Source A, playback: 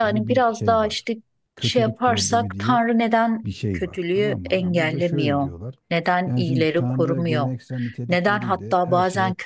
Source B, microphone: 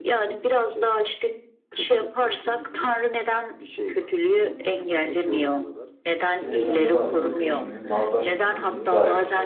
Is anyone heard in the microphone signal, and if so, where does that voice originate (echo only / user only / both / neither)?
both